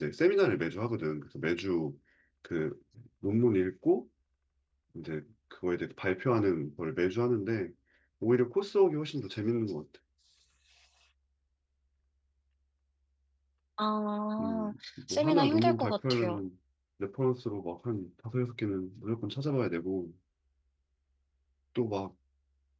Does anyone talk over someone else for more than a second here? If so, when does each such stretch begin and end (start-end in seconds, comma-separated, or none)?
15.1-16.4